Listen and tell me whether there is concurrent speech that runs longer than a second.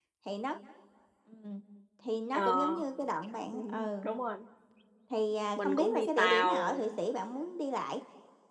Yes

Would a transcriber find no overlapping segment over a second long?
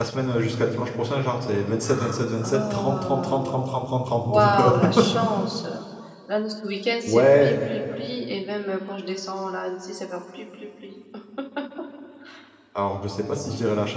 No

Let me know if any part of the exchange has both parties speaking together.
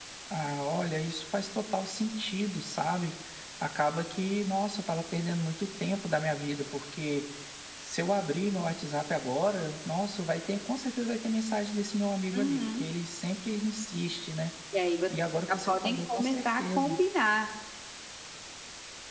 Yes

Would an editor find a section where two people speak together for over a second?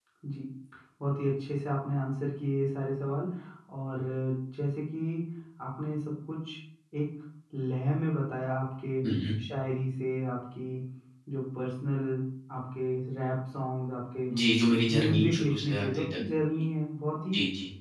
Yes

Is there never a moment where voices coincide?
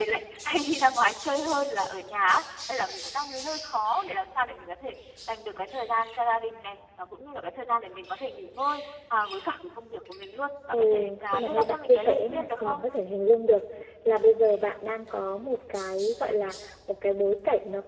No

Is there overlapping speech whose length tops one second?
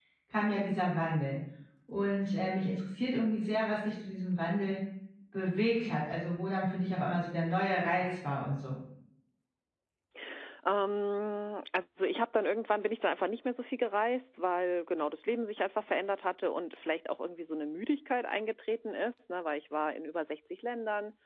No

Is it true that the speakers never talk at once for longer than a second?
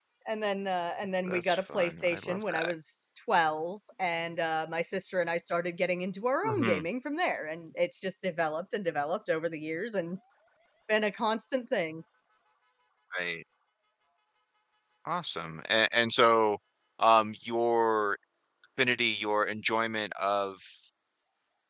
No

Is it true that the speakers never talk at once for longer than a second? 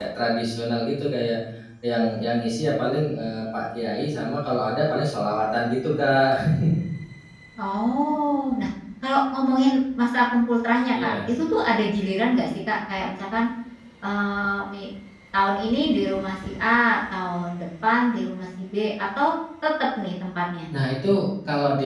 Yes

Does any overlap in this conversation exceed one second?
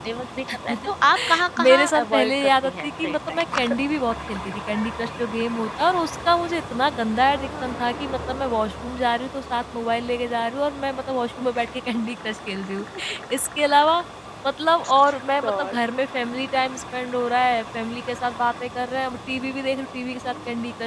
Yes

